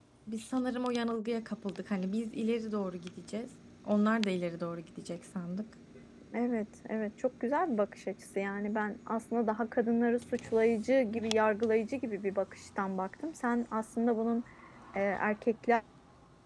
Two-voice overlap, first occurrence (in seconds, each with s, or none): none